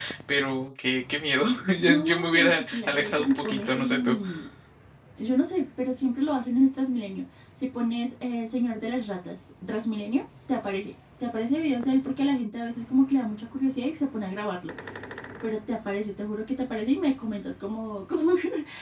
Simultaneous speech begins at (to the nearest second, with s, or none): 2 s